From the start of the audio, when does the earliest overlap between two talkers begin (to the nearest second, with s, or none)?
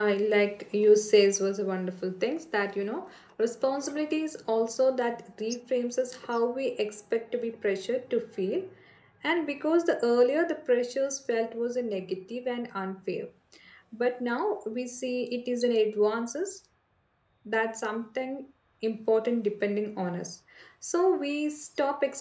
none